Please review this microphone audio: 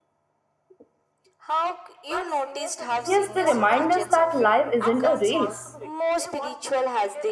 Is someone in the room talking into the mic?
Yes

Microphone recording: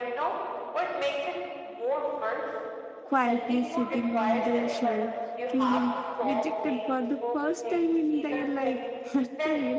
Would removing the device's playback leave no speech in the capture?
No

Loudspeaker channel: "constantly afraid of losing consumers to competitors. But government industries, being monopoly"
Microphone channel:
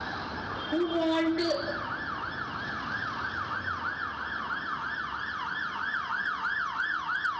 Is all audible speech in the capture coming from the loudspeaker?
No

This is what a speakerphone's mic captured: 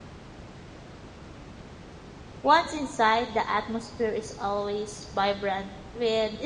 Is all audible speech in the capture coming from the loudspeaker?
No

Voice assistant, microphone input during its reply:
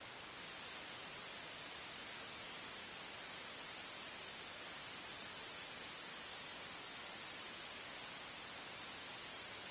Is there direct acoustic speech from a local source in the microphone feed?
No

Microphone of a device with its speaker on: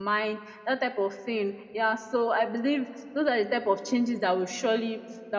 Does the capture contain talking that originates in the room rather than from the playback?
Yes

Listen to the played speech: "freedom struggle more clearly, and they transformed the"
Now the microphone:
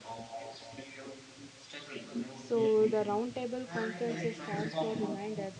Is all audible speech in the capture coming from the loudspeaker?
No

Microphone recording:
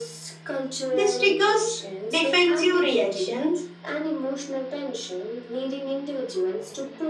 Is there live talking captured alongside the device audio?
Yes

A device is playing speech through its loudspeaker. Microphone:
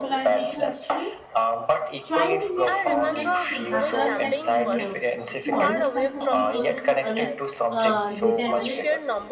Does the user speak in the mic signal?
Yes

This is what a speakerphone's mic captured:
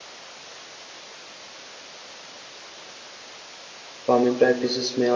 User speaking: Yes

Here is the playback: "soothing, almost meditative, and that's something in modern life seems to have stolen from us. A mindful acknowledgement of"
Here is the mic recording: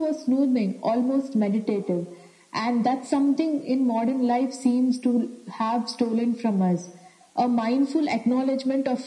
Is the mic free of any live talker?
Yes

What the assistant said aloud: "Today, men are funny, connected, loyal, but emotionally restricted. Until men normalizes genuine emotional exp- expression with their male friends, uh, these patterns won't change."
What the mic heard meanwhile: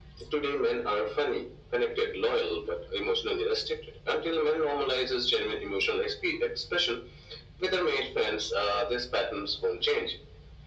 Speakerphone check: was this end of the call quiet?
Yes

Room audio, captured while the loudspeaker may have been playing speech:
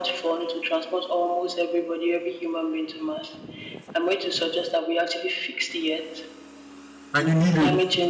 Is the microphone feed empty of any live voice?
No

